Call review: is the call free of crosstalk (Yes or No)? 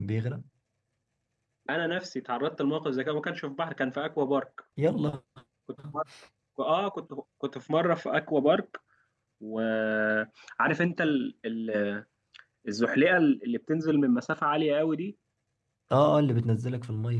Yes